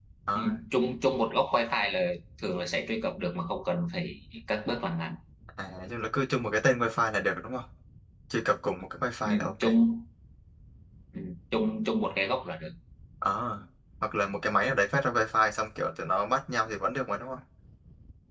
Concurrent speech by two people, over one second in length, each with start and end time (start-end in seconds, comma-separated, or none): none